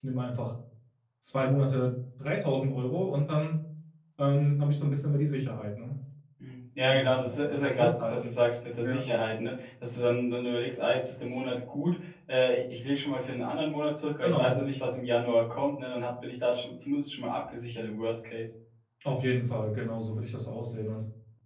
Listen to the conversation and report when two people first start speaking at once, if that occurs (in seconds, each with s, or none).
6.9 s